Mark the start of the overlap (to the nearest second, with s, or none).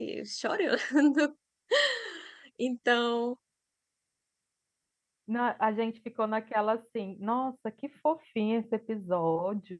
none